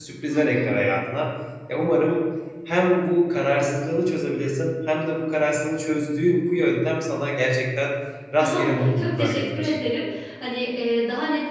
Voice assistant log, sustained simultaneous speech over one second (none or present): present